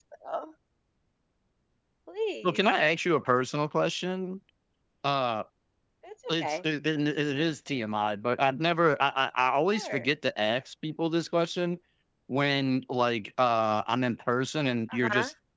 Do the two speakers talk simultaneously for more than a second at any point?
No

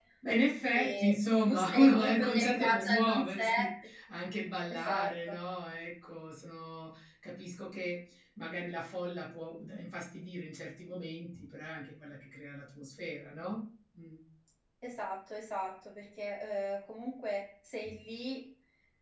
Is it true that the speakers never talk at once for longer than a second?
No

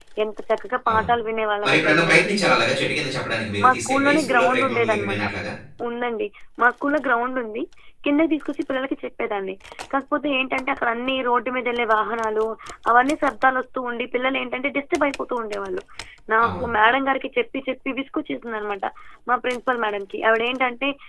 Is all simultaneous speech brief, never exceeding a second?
No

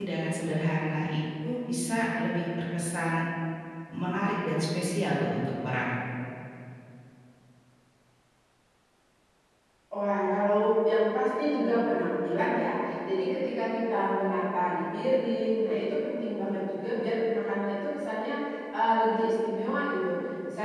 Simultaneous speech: No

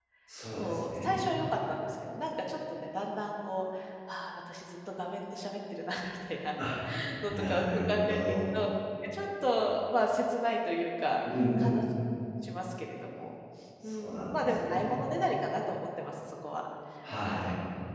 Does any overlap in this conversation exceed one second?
Yes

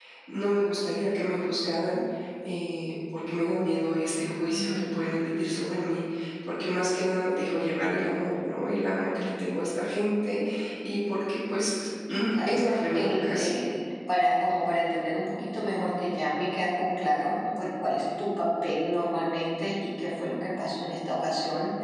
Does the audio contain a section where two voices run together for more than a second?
Yes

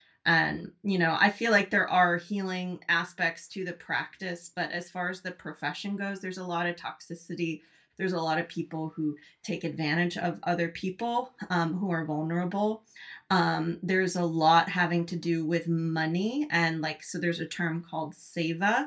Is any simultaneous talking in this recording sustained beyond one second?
No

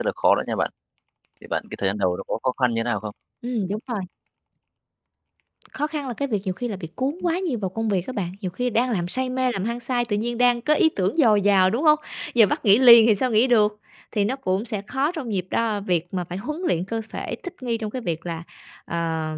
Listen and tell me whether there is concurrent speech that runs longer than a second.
No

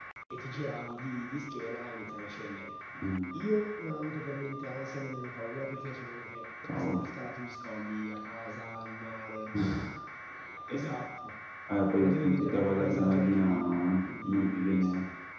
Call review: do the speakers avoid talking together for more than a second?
No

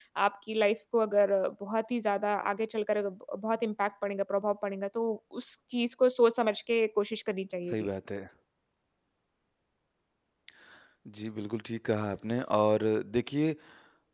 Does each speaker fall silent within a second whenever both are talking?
Yes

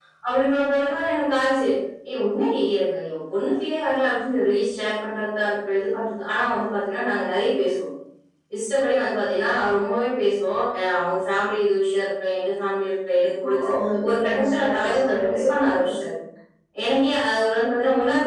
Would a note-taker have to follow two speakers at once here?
Yes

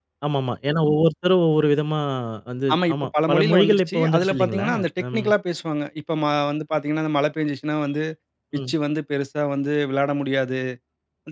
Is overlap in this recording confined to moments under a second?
No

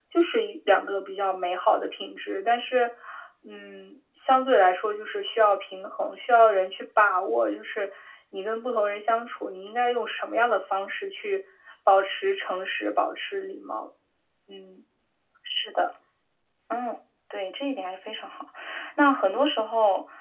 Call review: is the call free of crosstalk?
Yes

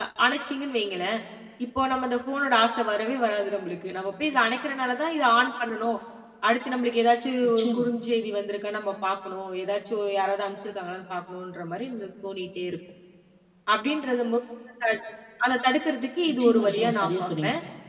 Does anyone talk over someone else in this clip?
Yes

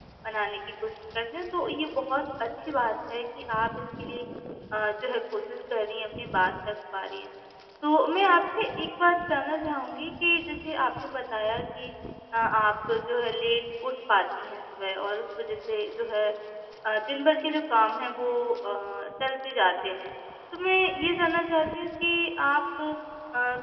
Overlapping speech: No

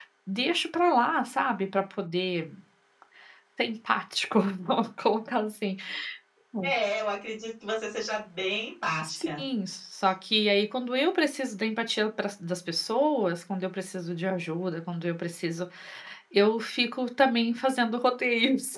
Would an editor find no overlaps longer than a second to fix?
Yes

